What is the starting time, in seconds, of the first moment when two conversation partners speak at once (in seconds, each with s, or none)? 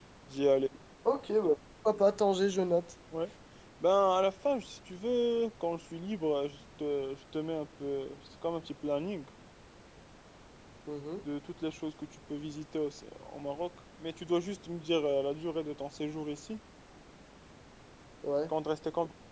none